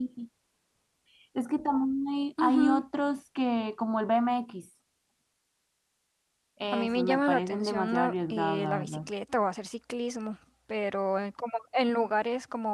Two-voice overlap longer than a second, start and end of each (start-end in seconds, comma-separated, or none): 6.7-9.0